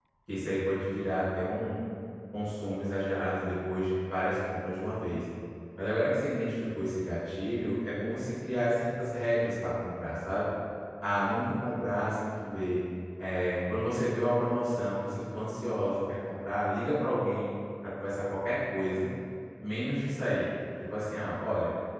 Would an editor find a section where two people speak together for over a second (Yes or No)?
No